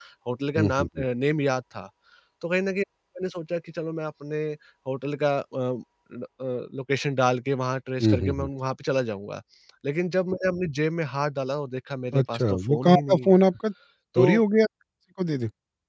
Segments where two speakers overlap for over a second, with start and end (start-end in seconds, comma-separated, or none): 12.1-13.4